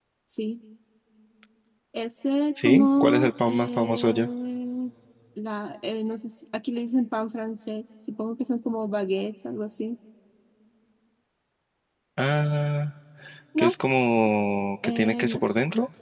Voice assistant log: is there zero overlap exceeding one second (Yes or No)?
No